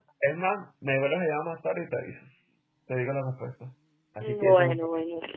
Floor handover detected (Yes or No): Yes